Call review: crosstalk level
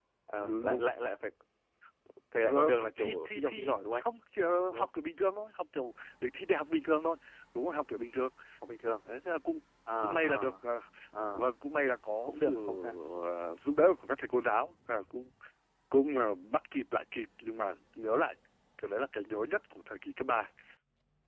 present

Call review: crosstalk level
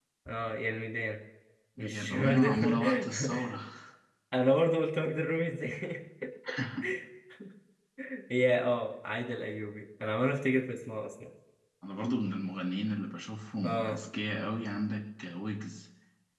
present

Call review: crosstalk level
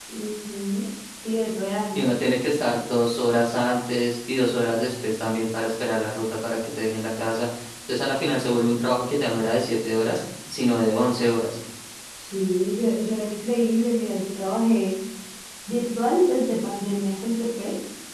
none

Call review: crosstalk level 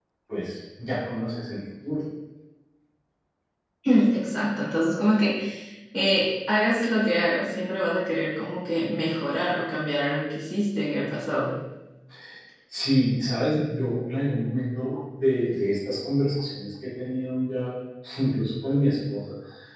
none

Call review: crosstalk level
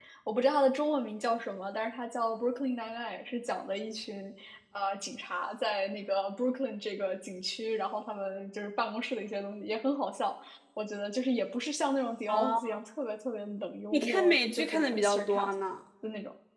present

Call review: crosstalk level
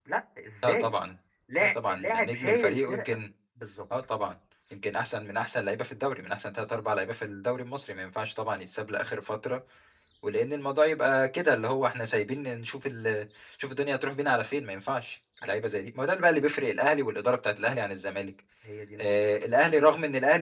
present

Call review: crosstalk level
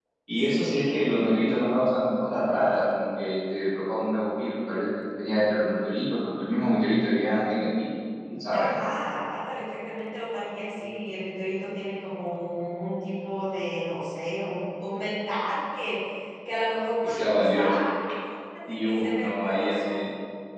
present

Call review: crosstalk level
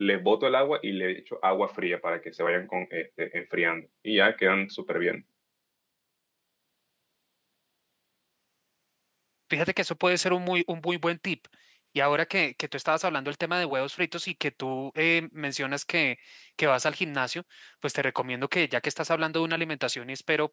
none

